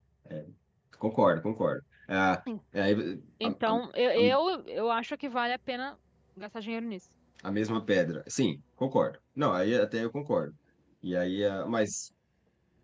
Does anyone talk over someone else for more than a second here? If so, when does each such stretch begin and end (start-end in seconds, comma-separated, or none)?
none